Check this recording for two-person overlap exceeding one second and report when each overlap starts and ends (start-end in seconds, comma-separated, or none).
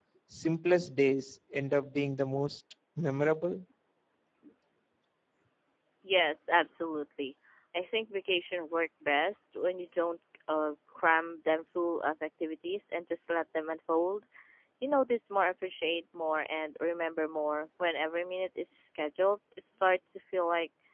none